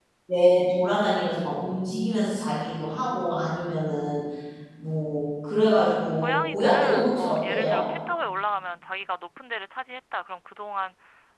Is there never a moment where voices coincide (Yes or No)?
No